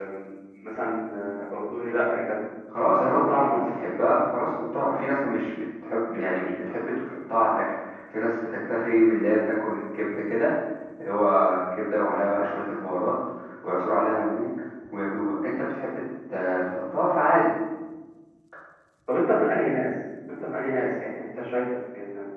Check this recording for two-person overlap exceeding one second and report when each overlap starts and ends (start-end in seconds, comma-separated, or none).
3.0-4.2